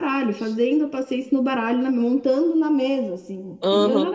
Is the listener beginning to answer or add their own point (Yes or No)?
Yes